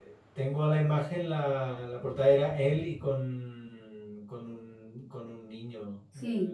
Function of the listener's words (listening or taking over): taking over